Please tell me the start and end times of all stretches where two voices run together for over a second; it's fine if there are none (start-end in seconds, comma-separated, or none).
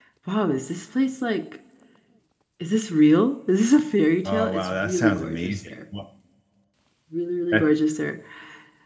4.2-5.6